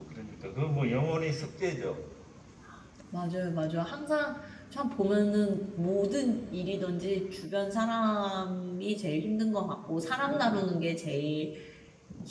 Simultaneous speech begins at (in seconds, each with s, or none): none